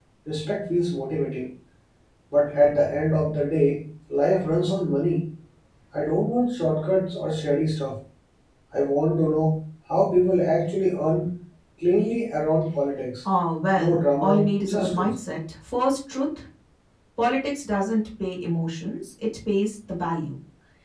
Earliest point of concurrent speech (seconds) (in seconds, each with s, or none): 13.8 s